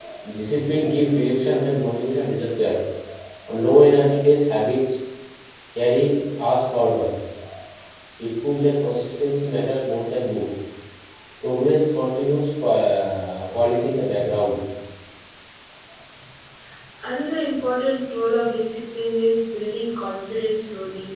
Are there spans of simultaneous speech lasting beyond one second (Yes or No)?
No